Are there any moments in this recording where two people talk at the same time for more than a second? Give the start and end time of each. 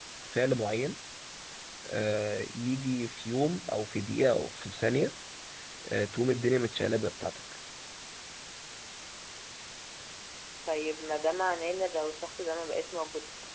none

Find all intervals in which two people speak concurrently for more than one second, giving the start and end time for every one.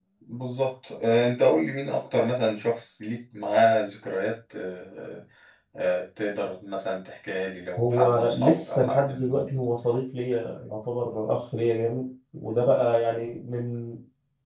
7.8-9.5

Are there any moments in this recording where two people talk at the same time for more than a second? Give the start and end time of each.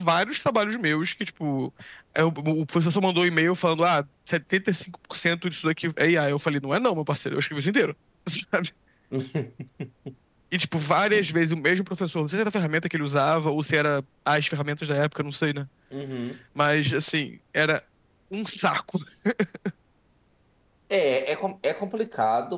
none

